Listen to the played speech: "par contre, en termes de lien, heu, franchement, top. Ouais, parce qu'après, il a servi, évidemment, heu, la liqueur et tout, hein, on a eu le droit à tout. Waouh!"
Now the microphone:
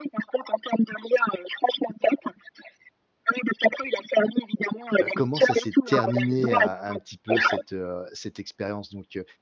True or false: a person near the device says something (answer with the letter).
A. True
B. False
A